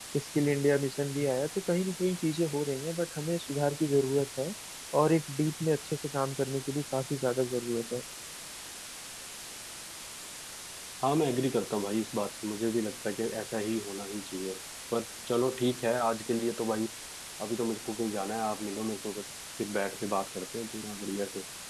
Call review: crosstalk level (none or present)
none